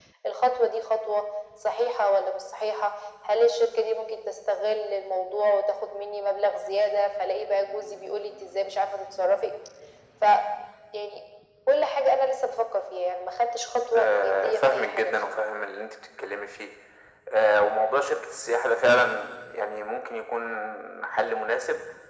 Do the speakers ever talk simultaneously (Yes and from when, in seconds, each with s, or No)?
Yes, from 13.9 s